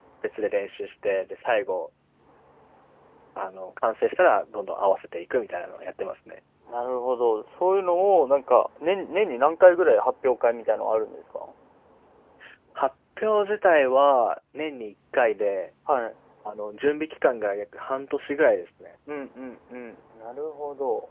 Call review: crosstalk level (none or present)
none